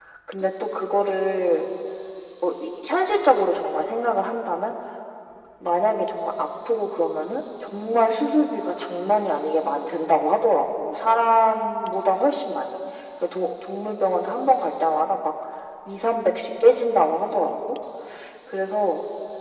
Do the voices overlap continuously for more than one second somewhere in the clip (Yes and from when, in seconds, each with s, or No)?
No